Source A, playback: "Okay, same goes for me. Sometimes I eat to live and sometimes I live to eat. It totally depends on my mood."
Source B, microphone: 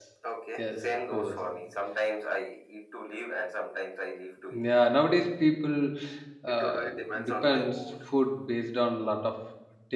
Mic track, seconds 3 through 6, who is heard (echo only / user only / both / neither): both